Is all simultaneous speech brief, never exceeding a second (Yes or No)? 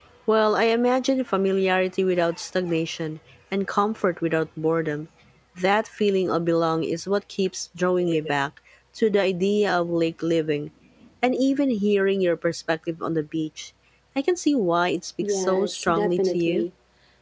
No